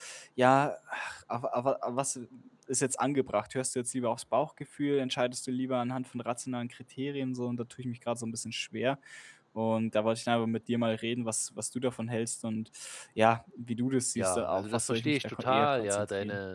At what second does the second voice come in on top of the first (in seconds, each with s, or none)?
14.2 s